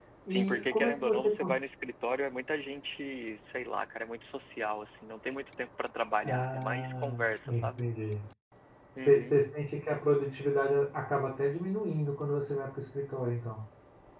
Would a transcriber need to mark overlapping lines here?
Yes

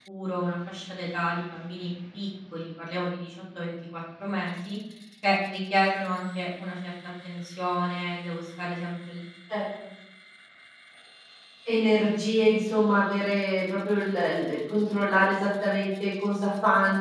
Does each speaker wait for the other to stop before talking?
Yes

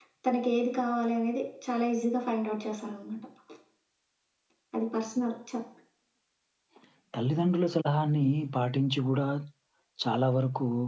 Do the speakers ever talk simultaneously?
No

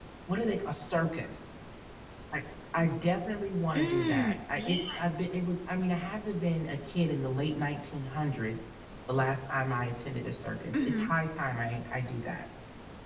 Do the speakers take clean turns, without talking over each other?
No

